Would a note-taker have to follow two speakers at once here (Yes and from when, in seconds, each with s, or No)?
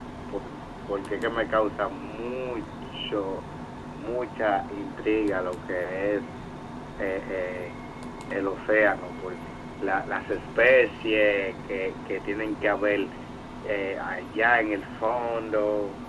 No